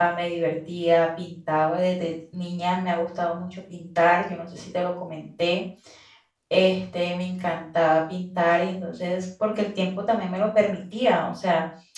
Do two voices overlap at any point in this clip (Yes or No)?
No